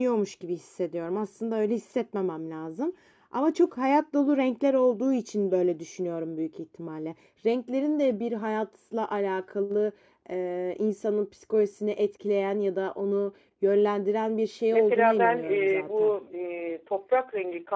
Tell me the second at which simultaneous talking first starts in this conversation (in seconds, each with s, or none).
14.7 s